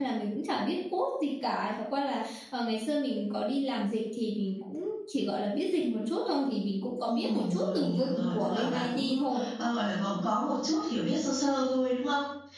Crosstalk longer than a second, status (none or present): present